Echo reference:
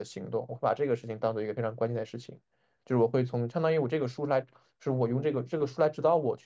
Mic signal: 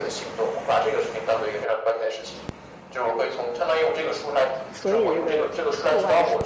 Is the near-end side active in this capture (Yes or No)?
Yes